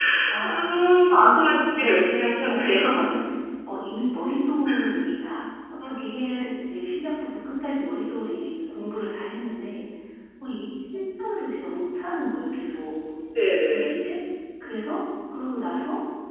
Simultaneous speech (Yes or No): Yes